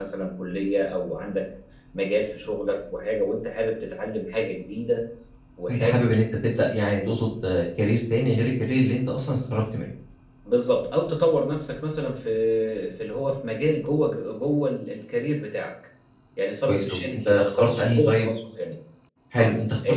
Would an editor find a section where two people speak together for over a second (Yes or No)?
Yes